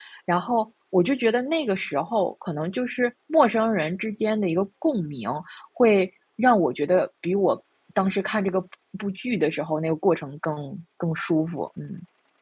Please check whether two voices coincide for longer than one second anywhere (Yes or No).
No